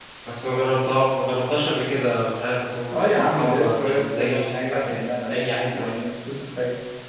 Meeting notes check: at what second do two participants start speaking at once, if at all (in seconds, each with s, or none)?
2.9 s